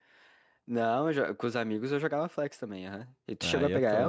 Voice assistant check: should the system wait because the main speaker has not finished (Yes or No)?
No